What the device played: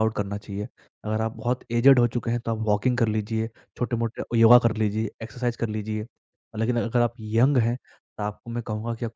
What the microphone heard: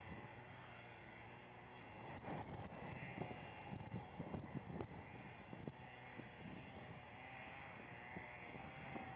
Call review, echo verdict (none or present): none